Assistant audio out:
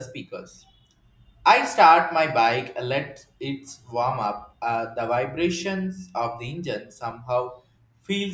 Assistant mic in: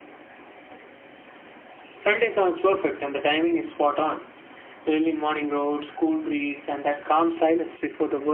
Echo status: none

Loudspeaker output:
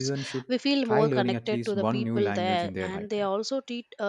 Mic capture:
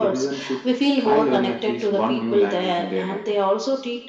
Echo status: present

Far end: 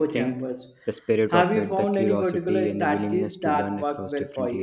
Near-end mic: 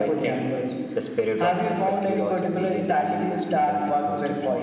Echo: present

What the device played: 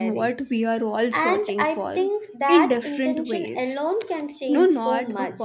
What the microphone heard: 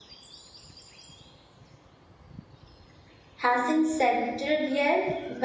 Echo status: none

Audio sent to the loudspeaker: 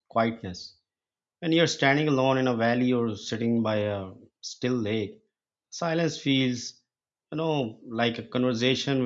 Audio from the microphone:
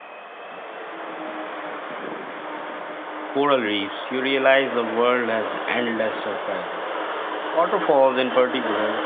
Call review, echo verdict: none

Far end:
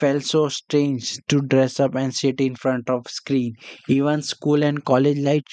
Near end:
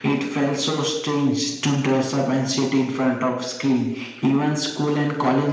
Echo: present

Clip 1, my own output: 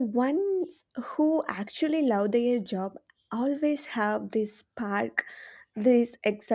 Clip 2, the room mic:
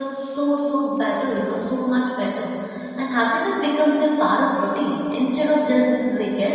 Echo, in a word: none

